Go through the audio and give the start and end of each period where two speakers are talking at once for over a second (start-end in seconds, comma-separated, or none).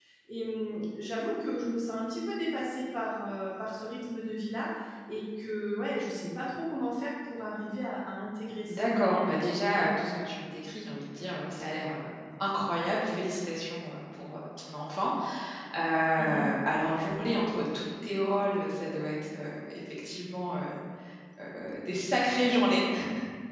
8.7-10.2